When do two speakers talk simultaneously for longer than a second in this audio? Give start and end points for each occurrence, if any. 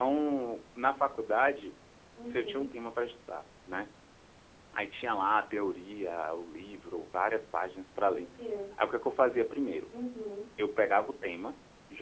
none

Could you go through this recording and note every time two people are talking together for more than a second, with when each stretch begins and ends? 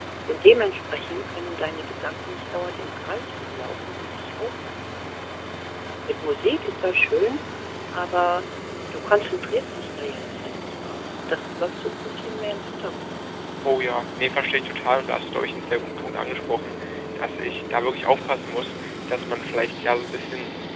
none

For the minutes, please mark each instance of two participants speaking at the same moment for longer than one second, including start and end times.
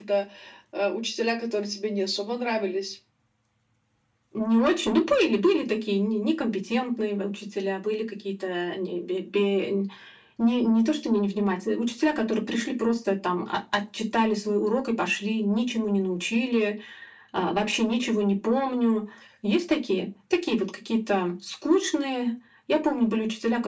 none

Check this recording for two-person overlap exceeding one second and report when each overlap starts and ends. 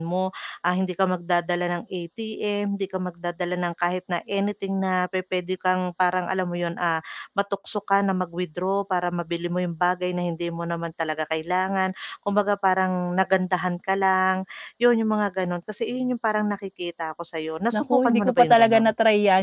17.7-18.9

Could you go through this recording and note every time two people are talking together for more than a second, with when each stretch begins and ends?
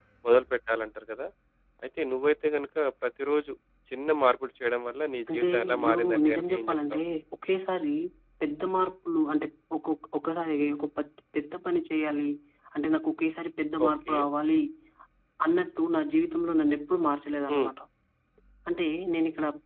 5.3-7.0

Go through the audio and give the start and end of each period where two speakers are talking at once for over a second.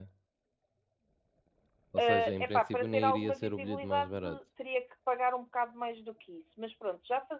2.0-4.1

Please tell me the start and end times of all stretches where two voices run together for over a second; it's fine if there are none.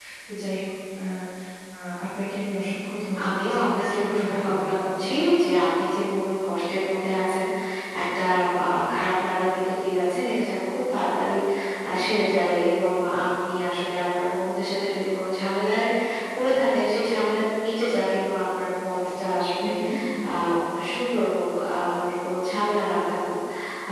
3.2-4.9

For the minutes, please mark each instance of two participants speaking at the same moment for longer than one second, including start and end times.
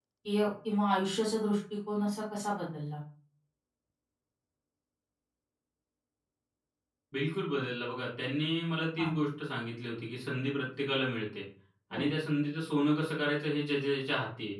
none

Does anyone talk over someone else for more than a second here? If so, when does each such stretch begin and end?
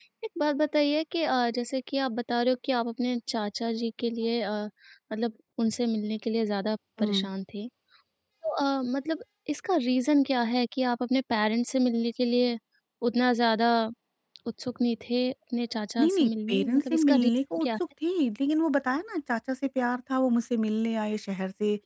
16.0-17.7

